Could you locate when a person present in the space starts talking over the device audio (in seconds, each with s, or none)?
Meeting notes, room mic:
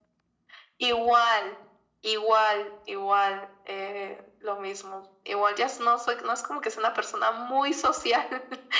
none